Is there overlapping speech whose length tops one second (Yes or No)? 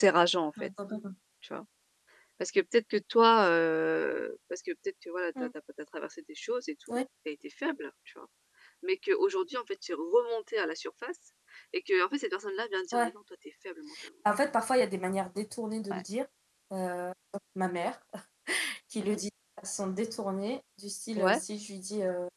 No